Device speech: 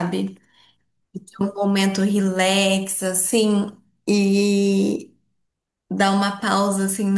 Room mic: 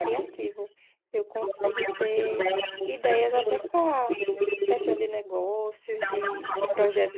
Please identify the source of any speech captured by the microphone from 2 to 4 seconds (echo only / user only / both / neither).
both